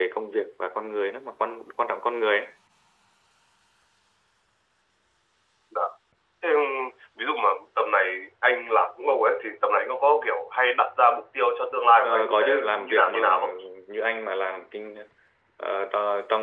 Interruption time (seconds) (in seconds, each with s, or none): 11.9 s